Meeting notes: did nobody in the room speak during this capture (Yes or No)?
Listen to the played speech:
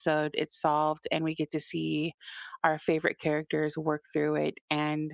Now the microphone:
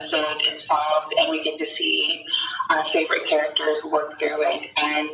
Yes